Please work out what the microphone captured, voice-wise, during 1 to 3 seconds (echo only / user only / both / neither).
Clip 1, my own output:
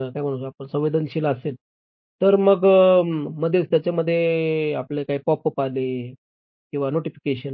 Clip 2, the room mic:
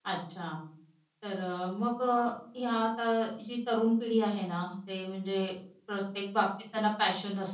user only